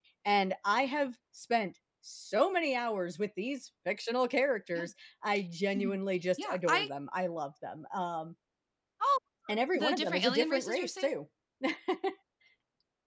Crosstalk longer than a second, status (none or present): present